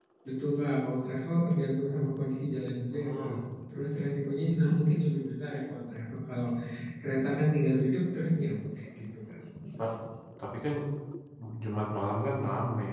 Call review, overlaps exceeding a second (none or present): none